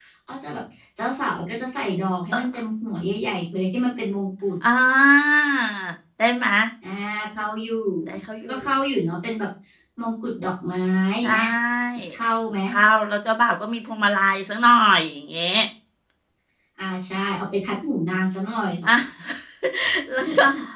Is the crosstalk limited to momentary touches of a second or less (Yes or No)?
Yes